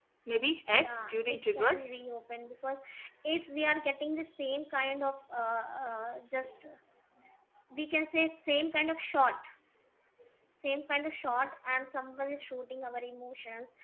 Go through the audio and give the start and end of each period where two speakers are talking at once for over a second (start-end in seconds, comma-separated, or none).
0.7-2.0